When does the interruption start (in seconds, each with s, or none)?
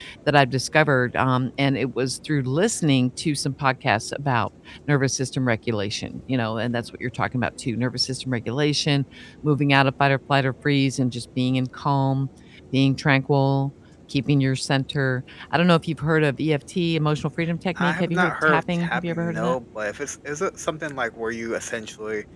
17.8 s